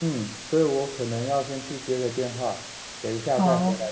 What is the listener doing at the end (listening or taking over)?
listening